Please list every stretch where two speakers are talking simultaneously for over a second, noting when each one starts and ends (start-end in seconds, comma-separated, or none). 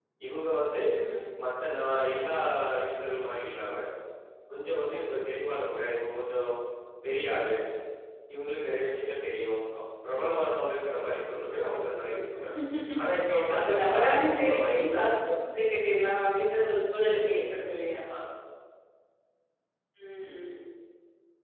13.5-15.0